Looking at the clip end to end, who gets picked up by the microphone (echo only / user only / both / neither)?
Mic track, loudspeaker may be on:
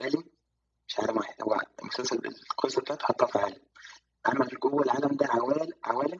echo only